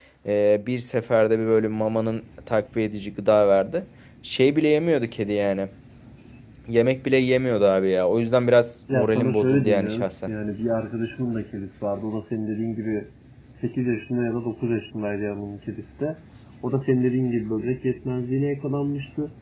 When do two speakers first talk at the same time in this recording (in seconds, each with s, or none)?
8.9 s